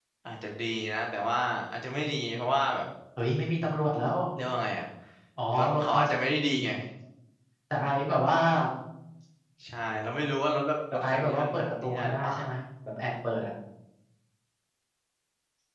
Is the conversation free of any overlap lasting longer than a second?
No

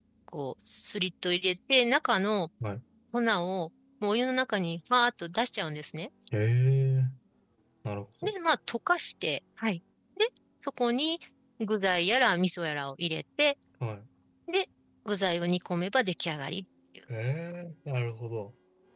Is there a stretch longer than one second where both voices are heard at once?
No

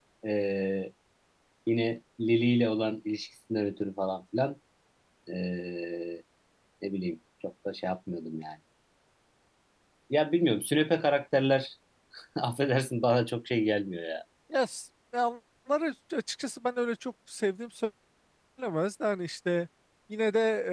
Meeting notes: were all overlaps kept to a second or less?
Yes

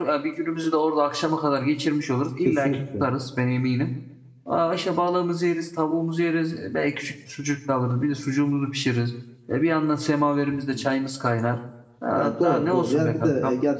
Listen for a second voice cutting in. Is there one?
Yes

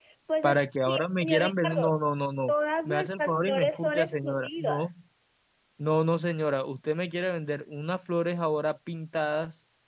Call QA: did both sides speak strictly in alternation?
No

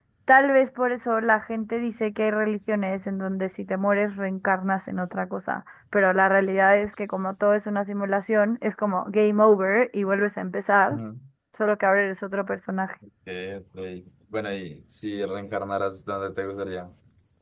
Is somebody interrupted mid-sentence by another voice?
No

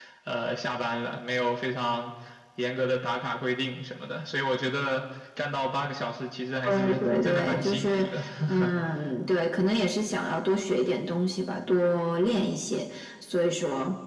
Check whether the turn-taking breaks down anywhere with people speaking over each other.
Yes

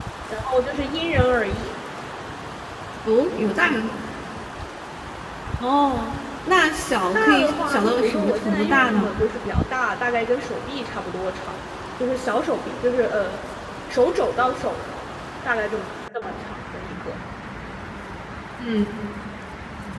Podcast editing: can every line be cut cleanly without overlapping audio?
No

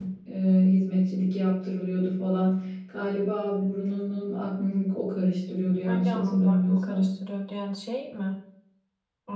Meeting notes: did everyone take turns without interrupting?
No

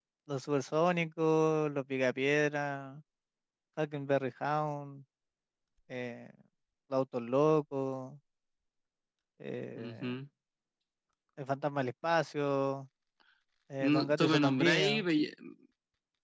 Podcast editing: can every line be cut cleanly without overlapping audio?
No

